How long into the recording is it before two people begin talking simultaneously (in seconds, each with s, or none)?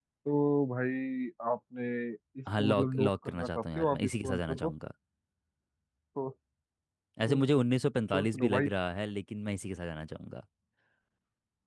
2.6 s